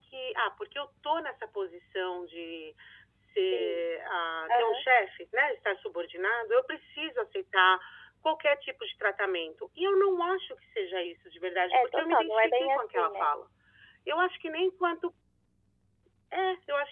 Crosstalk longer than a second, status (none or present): present